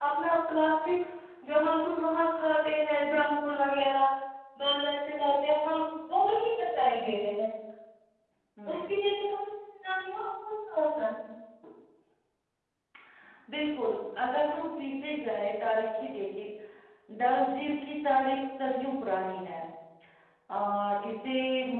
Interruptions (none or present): none